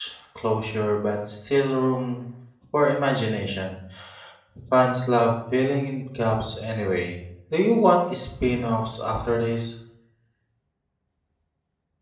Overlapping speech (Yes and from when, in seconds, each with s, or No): No